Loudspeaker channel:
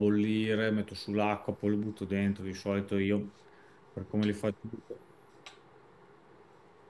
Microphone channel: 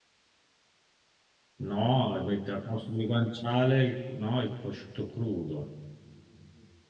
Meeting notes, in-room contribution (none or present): present